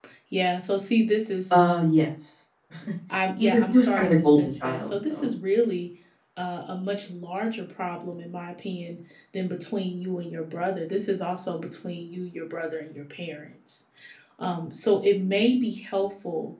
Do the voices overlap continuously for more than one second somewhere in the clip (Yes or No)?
Yes